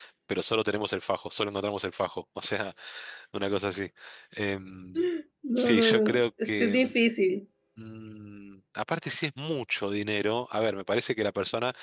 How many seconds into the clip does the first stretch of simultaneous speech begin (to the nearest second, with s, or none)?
6 s